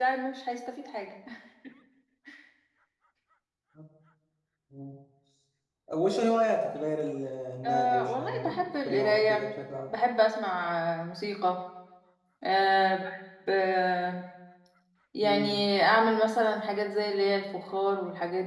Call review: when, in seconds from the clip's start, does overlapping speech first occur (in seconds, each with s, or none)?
7.6 s